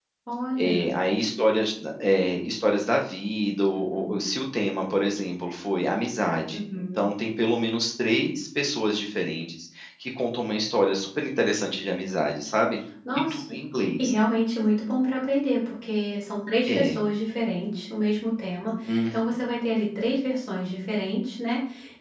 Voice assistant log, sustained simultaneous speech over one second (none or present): none